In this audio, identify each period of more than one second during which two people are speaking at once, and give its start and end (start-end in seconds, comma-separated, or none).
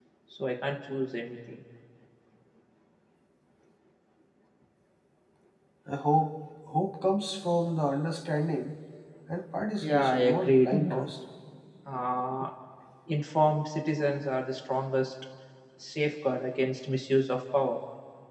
9.8-11.1